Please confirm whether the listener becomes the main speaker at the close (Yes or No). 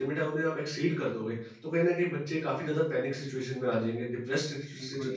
Yes